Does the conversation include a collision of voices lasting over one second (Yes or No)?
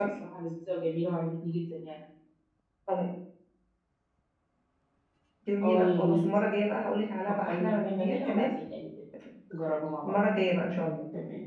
Yes